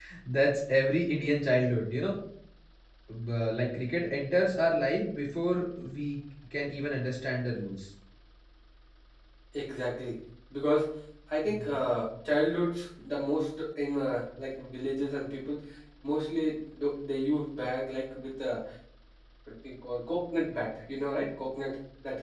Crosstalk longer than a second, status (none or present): none